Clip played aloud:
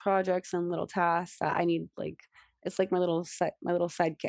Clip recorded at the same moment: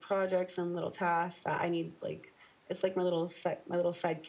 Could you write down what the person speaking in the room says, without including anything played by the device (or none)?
none